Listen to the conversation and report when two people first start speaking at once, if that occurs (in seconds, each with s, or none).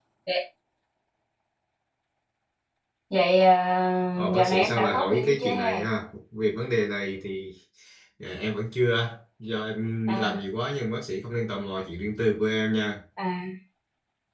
4.3 s